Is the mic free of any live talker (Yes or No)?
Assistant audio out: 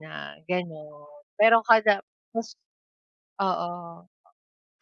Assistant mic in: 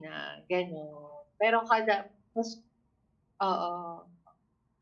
Yes